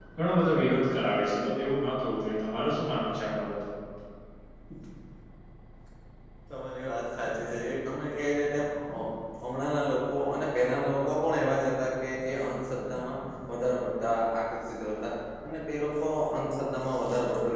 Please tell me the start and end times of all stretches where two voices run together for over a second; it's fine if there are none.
none

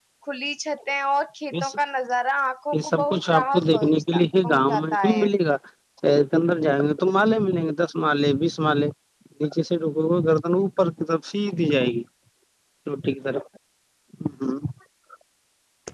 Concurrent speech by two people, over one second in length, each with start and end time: 2.7-5.3

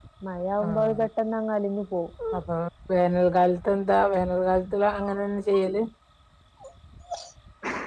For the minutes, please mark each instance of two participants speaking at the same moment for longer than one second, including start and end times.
none

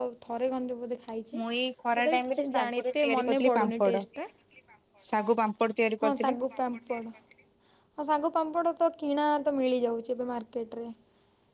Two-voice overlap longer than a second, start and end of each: 2.0-3.9

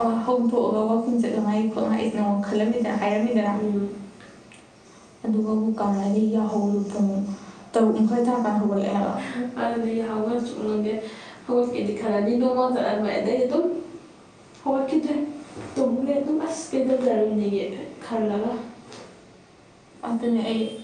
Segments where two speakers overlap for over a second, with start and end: none

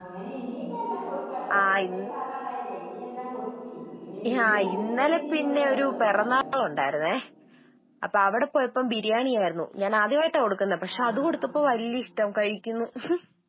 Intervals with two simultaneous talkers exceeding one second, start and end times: 4.4-6.4

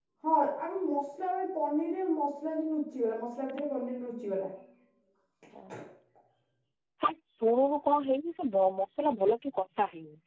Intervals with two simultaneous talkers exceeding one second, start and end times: none

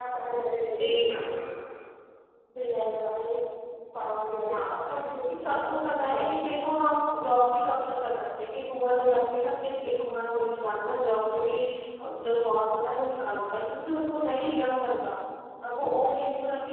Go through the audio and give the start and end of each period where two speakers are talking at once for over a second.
5.1-6.6

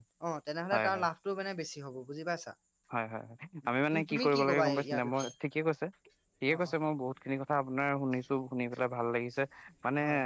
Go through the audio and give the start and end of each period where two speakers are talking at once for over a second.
3.9-5.3

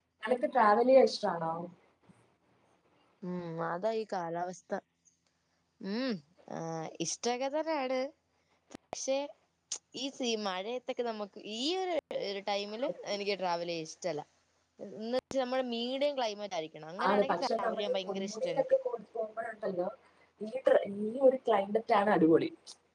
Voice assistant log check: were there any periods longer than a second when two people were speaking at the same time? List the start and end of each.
17.1-18.8

